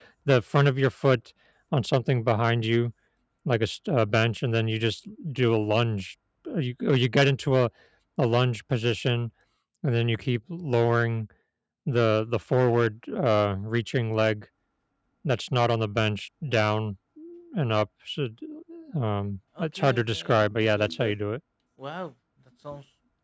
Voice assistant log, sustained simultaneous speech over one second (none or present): present